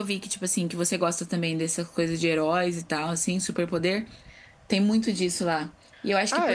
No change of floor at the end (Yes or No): Yes